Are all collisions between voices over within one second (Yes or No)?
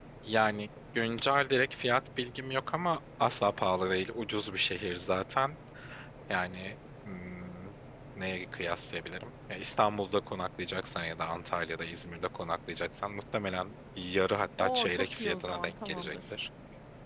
No